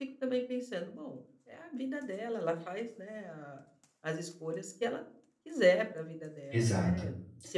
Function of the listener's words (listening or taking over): listening